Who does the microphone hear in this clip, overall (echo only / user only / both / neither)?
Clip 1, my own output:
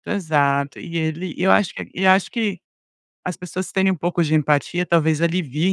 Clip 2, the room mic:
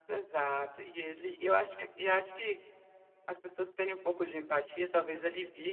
echo only